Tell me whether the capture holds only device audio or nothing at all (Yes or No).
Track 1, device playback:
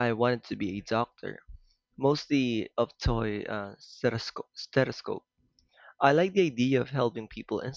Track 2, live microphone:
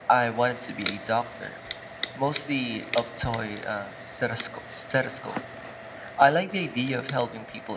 Yes